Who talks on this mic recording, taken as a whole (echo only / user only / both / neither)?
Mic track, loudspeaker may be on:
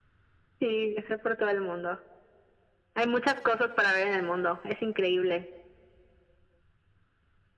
echo only